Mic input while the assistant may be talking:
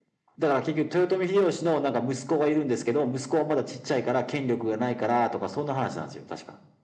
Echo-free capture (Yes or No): No